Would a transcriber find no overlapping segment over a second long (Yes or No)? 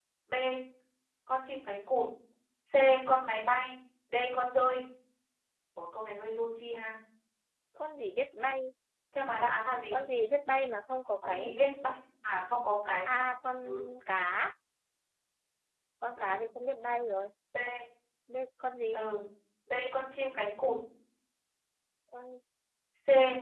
Yes